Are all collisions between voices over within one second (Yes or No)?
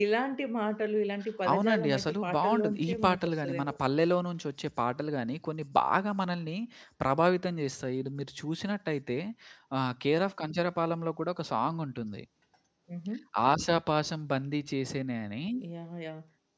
No